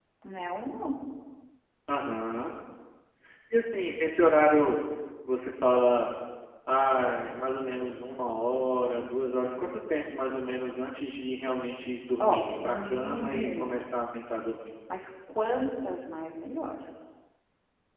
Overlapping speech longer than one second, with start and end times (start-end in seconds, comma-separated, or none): 12.2-13.8